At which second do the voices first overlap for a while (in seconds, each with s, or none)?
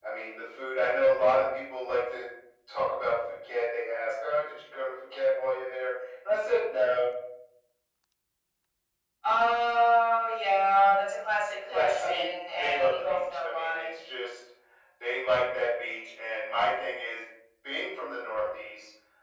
11.6 s